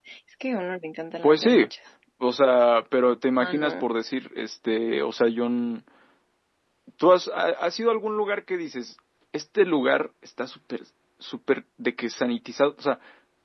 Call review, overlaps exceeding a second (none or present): none